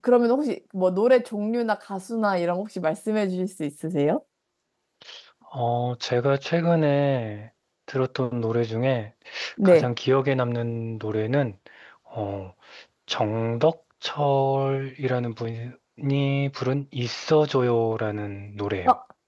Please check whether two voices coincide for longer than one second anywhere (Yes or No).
No